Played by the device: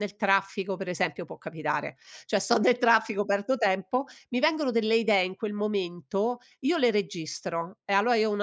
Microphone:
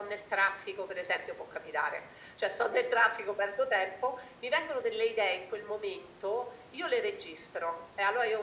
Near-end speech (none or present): none